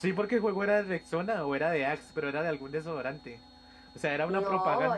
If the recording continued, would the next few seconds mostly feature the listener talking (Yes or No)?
Yes